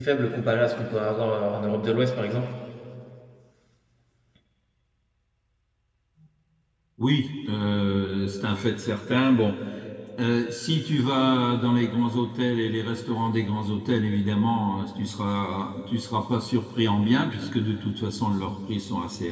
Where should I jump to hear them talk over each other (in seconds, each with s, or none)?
none